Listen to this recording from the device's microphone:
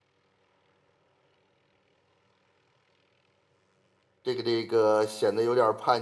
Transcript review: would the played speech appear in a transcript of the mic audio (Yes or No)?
No